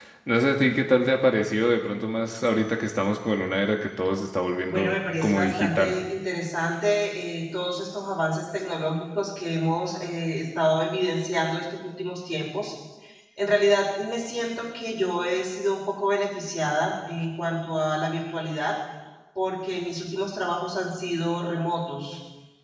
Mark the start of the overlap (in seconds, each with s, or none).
4.7 s